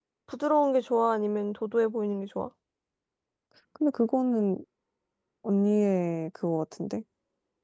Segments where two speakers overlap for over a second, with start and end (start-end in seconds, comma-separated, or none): none